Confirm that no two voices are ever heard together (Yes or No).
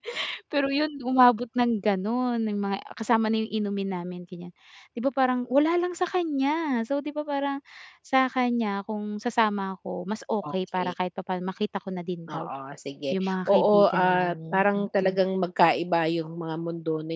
No